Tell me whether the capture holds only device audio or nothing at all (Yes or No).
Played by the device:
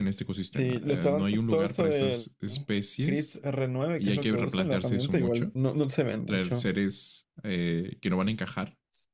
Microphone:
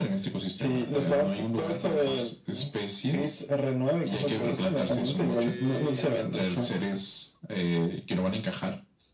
No